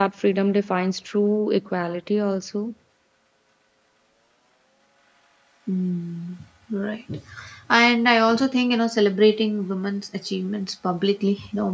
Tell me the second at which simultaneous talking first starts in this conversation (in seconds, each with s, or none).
none